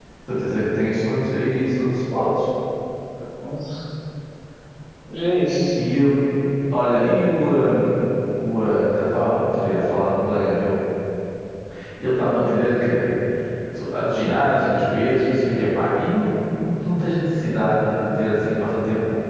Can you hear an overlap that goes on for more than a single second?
No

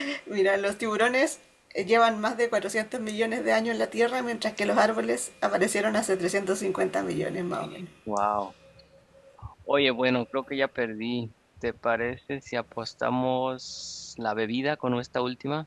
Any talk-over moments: No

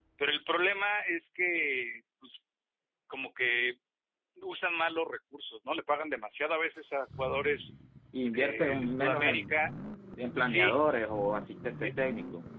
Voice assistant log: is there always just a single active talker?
No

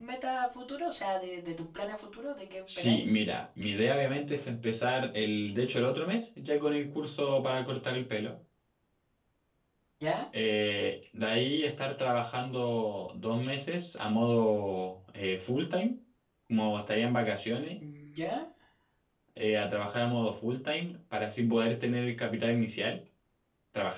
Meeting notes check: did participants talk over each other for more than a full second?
No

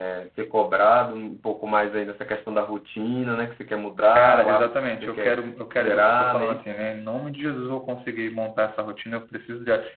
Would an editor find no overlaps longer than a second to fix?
No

